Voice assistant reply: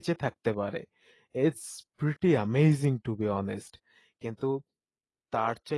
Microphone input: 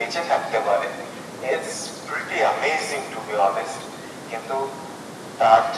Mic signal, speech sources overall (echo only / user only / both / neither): echo only